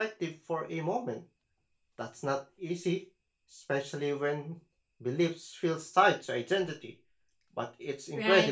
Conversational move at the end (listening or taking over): taking over